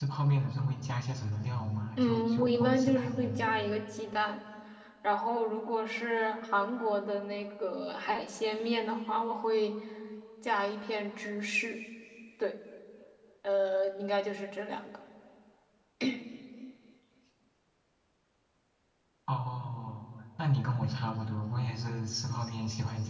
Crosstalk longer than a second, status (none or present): present